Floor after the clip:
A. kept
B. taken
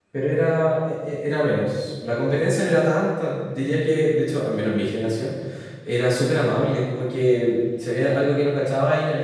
A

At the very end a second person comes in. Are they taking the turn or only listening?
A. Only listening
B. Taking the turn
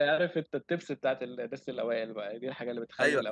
B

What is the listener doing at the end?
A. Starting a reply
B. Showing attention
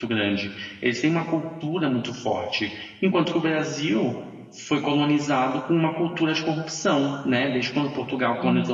B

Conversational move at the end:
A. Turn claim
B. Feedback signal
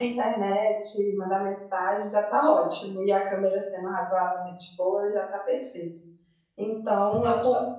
B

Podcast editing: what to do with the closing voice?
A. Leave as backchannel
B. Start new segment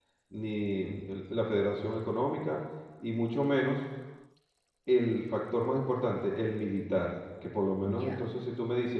A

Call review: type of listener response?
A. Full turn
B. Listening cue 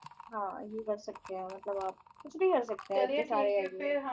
A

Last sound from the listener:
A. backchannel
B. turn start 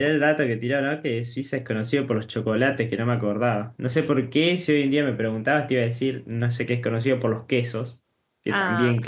B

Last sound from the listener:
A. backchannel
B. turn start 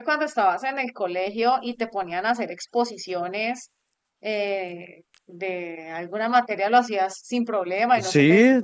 B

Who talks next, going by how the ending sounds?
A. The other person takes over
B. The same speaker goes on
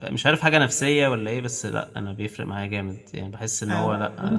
A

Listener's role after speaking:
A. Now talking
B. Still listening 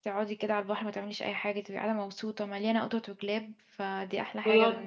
A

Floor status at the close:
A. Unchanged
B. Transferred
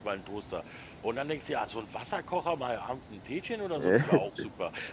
A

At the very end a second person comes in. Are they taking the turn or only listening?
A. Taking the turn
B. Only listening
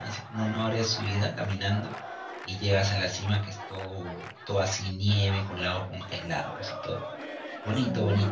A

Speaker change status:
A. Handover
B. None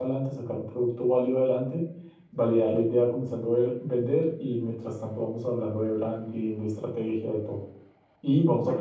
B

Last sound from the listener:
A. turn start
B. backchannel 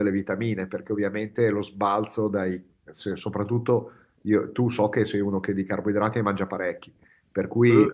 B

